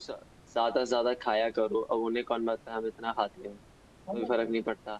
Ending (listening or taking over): taking over